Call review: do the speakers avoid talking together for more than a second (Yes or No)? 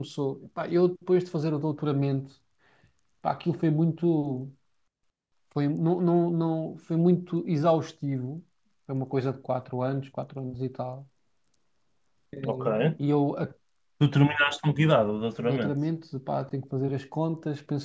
Yes